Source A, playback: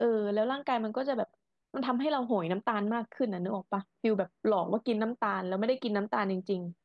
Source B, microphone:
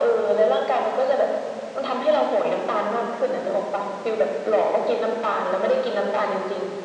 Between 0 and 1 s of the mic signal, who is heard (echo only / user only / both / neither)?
echo only